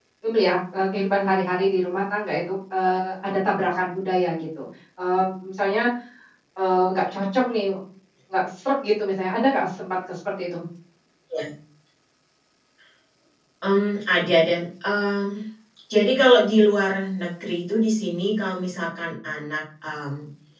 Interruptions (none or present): none